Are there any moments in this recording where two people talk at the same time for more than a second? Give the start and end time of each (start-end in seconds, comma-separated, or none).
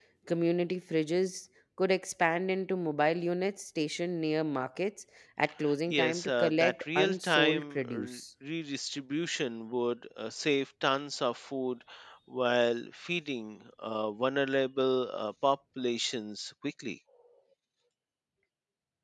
5.9-8.2